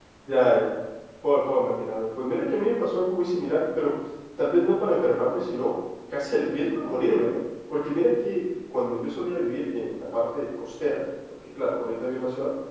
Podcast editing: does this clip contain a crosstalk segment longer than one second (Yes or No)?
No